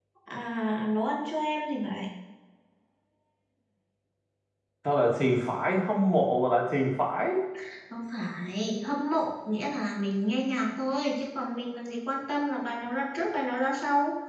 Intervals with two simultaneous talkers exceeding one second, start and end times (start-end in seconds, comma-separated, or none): none